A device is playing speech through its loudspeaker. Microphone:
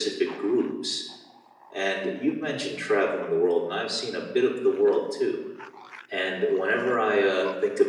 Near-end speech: none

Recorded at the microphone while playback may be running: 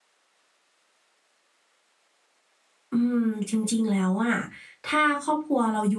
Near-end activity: present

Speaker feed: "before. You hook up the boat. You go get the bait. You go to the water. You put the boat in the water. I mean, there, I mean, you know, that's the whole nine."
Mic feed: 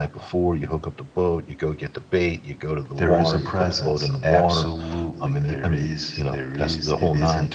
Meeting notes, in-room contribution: present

